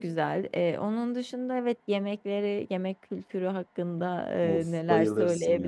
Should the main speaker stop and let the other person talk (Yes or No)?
Yes